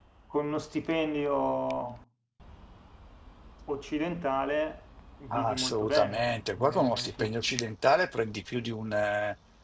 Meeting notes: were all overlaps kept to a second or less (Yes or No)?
No